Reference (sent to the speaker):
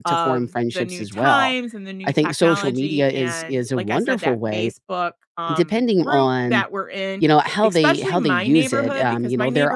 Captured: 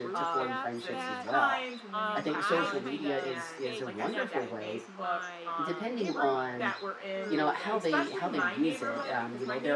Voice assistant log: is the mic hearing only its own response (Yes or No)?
No